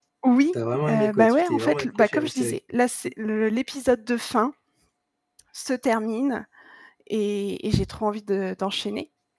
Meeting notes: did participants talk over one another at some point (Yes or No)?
Yes